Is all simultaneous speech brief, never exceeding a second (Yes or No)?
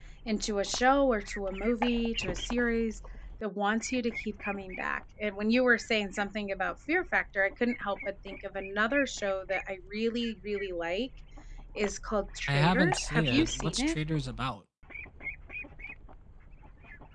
No